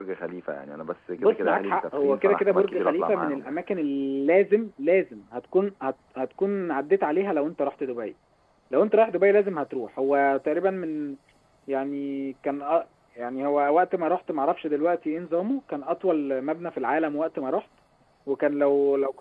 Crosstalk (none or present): present